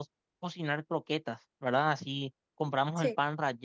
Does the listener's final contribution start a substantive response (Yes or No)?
No